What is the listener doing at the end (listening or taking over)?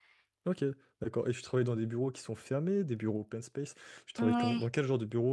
listening